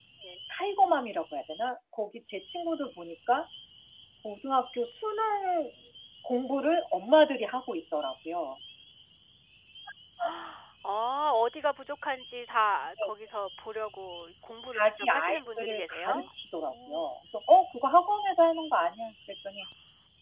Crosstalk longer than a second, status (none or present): present